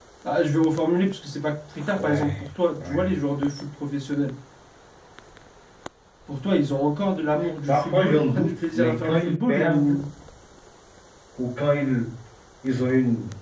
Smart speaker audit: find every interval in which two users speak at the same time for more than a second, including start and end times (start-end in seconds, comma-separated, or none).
7.7-10.0